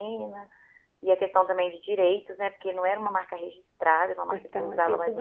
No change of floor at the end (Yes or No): No